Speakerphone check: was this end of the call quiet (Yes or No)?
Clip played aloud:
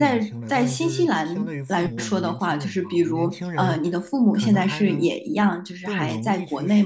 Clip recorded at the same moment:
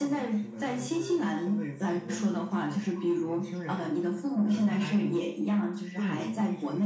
Yes